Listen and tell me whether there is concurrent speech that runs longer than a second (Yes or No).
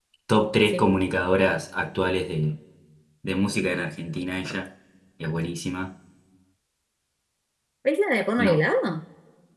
No